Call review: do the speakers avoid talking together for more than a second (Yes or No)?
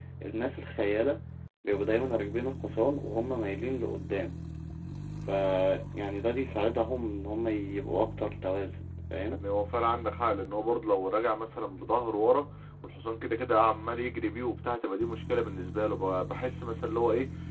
Yes